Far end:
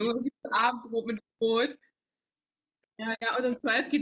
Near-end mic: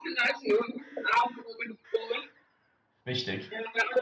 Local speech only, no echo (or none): Richtig.